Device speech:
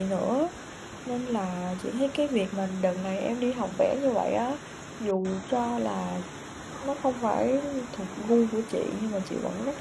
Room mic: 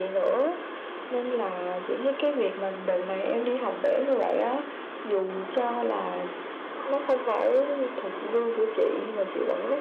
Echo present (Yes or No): Yes